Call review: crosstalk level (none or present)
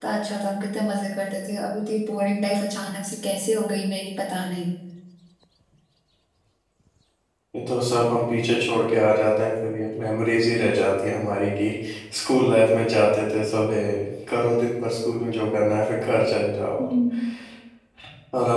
none